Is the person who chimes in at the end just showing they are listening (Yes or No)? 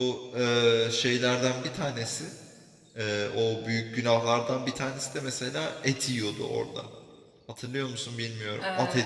No